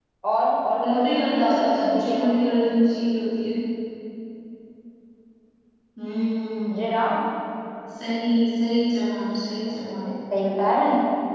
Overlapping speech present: Yes, from 0.8 s

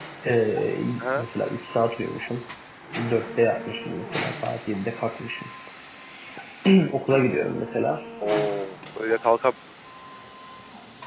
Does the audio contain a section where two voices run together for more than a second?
No

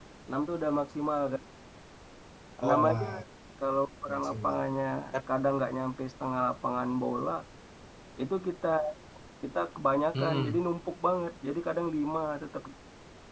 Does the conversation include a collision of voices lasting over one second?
No

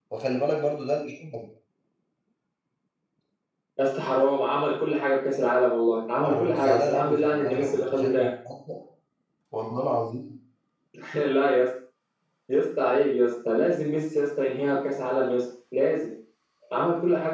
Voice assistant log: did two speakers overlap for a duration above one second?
Yes, from 6.2 s

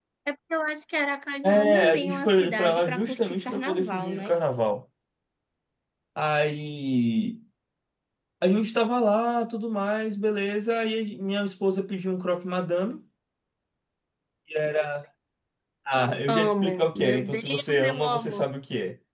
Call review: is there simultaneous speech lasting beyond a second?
Yes, from 1.4 s

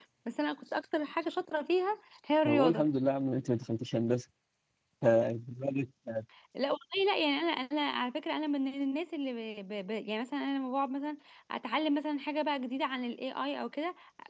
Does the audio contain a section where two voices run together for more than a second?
No

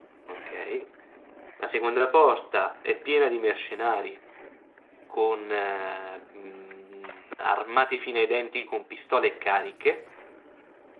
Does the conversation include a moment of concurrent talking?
No

